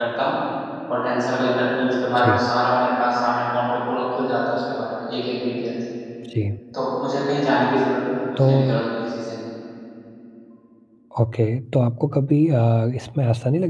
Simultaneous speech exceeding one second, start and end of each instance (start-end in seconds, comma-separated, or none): none